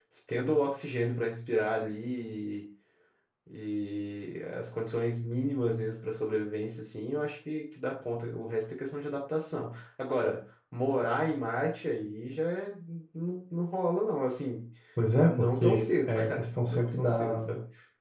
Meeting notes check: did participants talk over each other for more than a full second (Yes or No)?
Yes